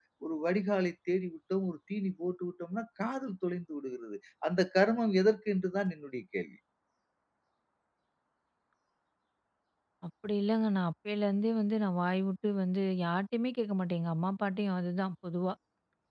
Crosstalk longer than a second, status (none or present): none